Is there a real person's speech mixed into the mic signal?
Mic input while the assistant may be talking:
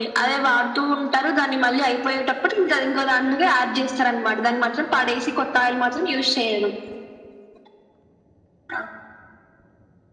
No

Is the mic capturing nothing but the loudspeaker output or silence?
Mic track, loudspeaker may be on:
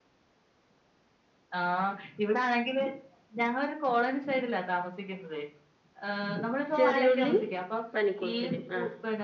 No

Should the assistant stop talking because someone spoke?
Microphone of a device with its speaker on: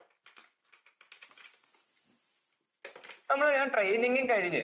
Yes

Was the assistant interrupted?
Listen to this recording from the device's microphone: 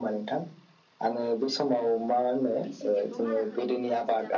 Yes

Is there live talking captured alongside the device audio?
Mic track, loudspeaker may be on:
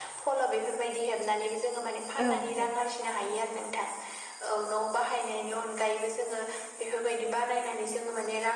Yes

